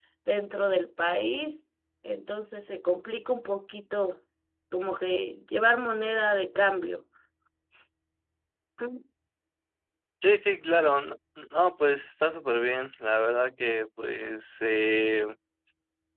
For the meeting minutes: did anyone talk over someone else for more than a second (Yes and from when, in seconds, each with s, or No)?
No